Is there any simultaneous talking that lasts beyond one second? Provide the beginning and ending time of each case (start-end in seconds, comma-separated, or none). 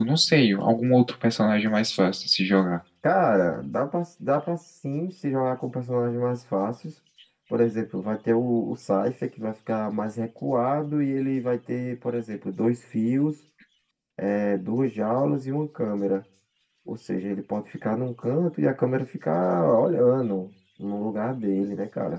none